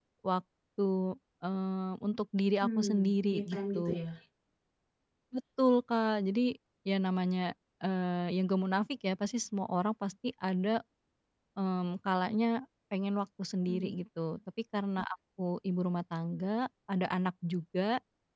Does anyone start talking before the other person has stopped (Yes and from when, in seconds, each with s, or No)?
Yes, from 2.6 s